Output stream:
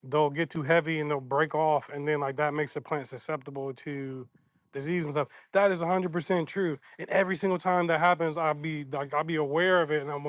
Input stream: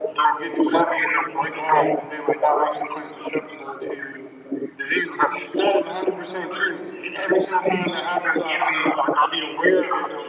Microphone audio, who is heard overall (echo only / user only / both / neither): echo only